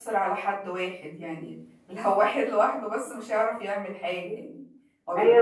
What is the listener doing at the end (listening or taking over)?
taking over